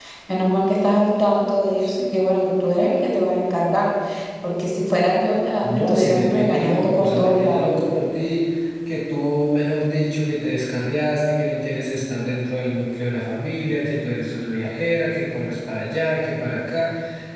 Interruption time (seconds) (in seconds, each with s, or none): 5.6 s